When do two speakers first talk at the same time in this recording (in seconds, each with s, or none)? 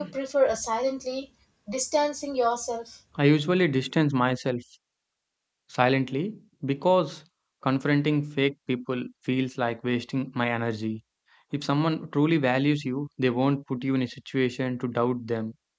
none